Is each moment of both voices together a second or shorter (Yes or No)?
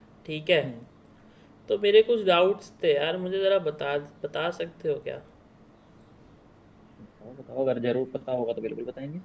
Yes